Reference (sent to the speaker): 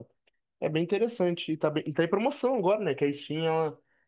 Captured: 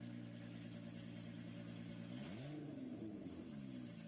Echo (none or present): none